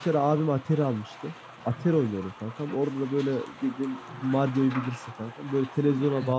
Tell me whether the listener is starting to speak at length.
No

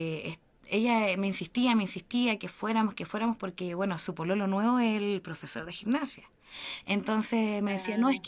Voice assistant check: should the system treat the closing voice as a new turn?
No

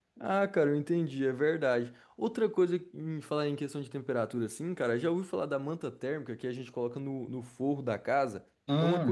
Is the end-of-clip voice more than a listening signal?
No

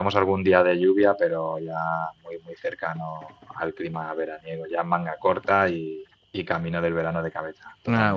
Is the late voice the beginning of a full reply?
Yes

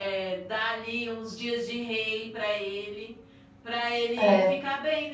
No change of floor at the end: Yes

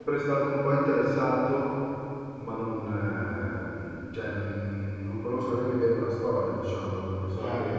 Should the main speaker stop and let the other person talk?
Yes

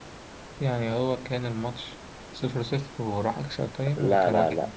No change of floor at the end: No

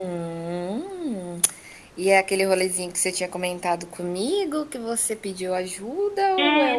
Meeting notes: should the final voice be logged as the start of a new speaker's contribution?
Yes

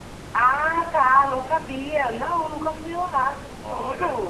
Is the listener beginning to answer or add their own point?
Yes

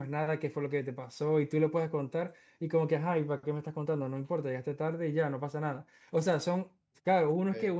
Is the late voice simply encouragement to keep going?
Yes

